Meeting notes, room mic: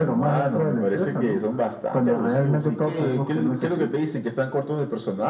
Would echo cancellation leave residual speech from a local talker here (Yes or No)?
No